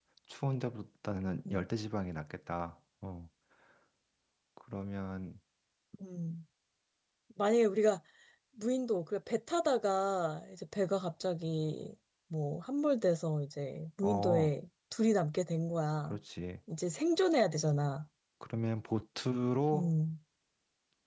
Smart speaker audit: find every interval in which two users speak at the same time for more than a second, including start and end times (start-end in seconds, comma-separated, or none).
none